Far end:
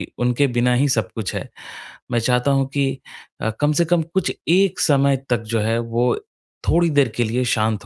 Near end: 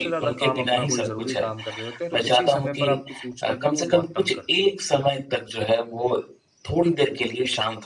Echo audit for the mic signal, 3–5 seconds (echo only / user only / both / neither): both